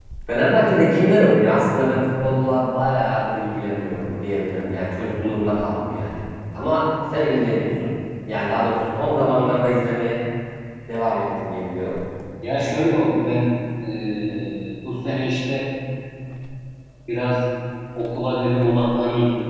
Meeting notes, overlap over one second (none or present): none